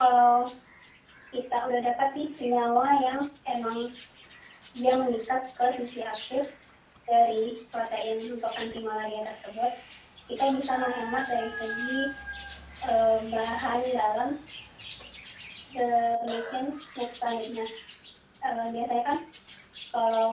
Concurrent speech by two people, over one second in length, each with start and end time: none

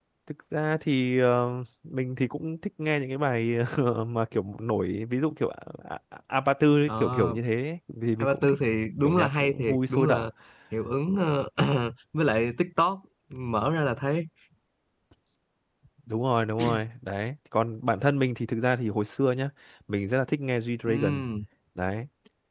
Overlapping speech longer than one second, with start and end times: 9.0-10.3

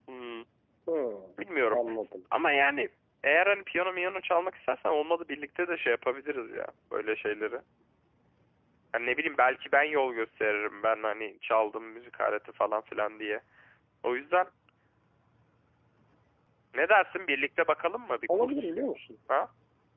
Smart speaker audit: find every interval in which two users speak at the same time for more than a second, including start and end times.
none

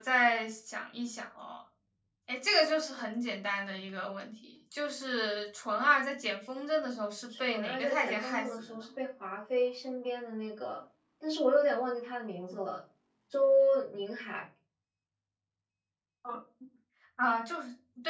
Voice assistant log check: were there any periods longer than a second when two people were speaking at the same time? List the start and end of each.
7.4-8.8

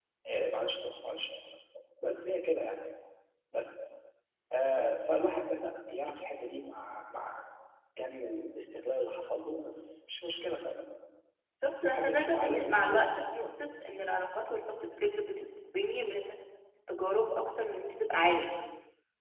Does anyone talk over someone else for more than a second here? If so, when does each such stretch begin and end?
11.8-13.1

